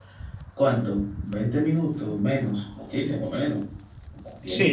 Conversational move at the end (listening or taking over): taking over